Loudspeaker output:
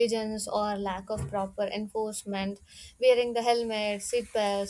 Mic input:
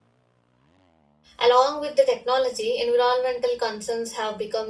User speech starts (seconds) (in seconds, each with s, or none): 1.4 s